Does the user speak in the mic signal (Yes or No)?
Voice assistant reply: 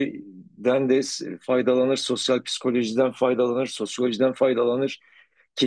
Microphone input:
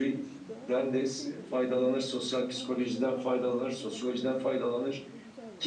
Yes